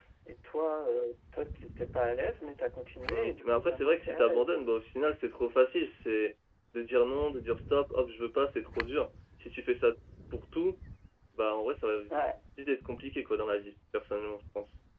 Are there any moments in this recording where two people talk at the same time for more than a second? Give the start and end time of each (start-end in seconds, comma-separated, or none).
3.1-4.6